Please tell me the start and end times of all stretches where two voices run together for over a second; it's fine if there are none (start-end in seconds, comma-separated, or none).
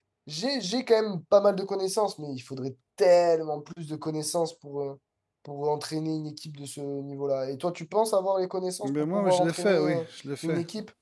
8.8-10.0